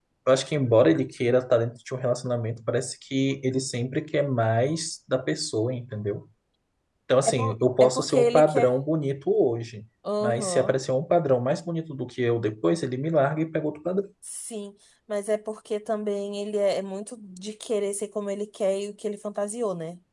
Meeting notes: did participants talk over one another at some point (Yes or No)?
Yes